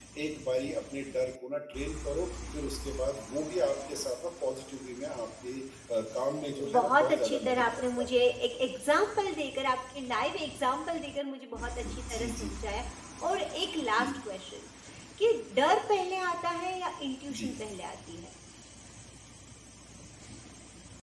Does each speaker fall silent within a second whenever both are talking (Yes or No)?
No